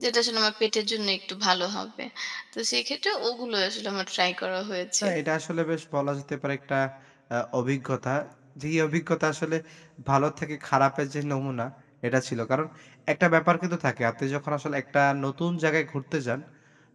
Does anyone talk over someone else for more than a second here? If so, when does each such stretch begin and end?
none

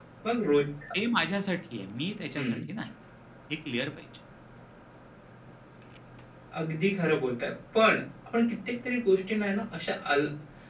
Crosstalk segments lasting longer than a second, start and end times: none

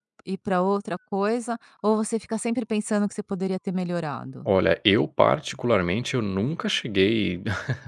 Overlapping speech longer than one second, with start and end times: none

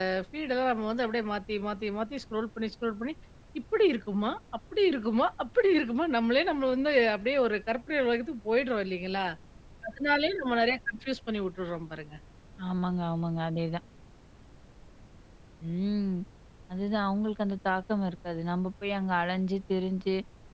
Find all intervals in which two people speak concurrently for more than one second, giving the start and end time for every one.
none

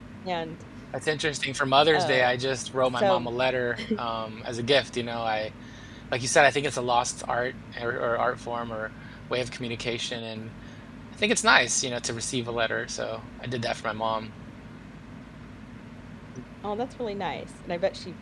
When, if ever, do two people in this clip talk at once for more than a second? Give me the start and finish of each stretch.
none

